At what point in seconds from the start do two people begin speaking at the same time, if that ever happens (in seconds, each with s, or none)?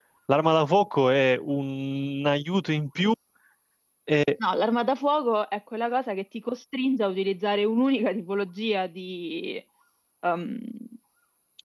none